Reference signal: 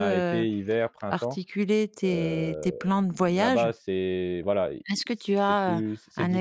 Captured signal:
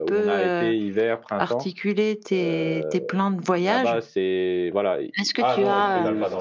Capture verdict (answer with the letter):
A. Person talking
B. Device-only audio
A